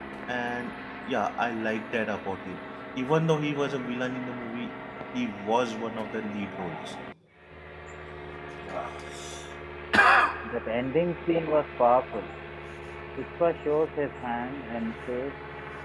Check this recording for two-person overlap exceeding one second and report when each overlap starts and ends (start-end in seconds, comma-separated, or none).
none